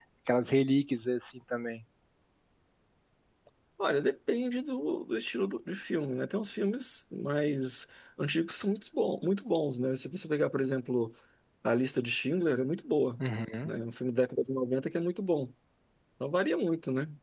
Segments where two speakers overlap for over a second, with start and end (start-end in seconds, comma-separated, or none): none